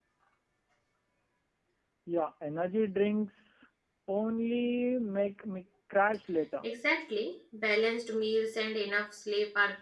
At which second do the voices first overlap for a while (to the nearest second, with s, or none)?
none